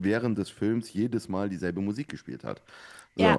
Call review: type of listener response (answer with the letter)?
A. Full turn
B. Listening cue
B